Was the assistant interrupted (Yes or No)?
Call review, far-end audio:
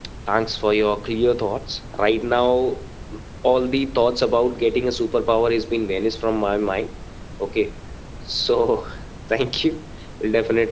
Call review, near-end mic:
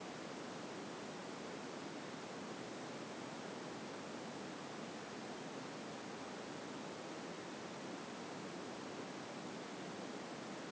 No